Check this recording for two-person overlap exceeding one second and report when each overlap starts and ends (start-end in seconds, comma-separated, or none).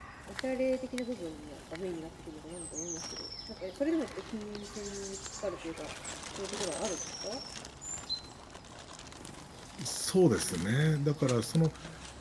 none